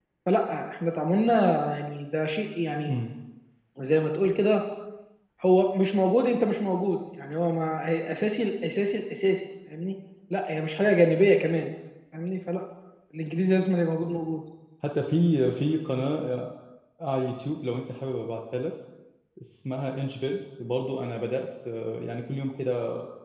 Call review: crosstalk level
none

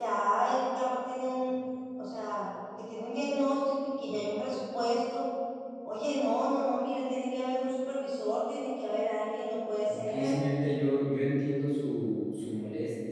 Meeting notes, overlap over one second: none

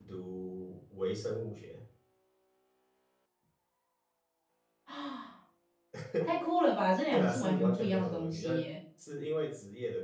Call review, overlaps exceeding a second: present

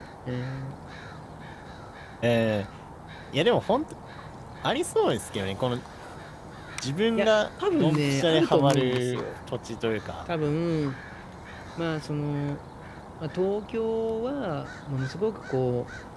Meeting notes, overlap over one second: present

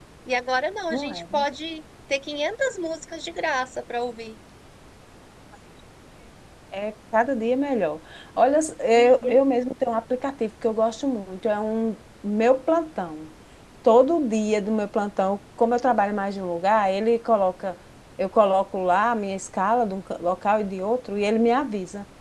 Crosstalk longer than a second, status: none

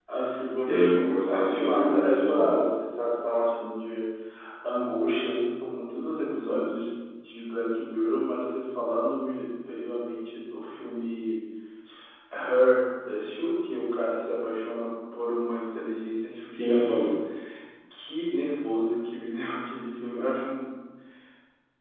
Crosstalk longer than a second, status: present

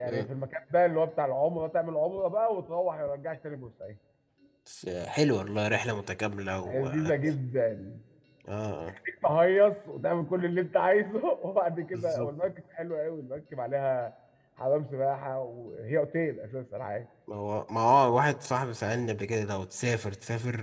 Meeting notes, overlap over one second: none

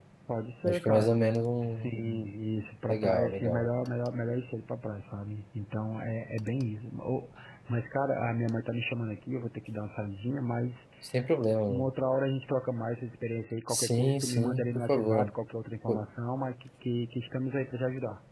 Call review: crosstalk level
present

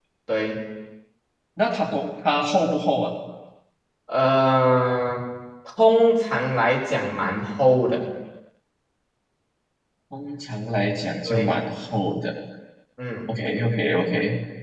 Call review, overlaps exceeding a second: none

